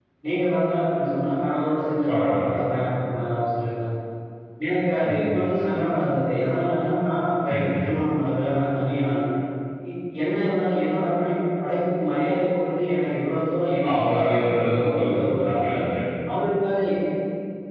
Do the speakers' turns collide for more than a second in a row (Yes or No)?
Yes